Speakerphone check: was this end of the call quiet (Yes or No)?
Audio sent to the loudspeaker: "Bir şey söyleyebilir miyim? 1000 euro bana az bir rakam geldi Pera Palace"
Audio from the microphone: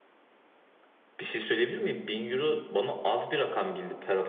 Yes